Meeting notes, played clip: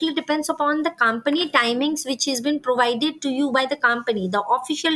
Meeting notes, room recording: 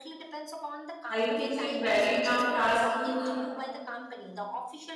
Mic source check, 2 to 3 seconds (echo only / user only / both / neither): both